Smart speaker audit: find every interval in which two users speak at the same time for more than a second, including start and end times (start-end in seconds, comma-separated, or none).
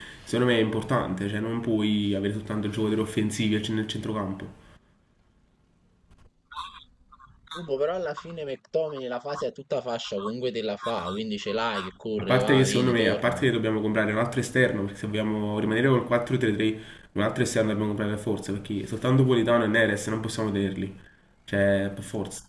12.2-13.4